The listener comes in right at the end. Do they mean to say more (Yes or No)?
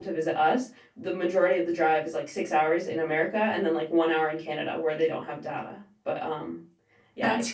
Yes